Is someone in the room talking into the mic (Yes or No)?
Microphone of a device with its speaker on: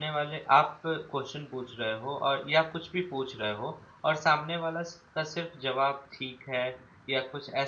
Yes